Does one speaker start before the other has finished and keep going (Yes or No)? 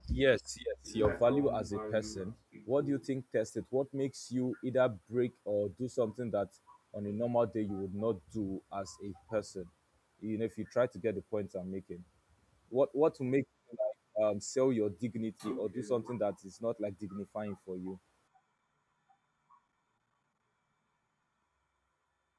Yes